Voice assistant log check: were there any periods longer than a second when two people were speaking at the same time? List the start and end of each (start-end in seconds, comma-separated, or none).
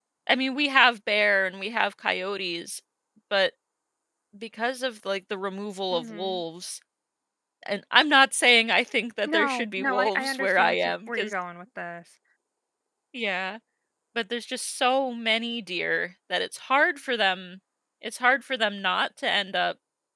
9.2-11.3